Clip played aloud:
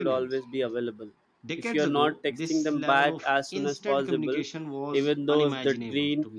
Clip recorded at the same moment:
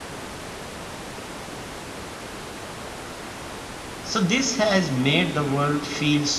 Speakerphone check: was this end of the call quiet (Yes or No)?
No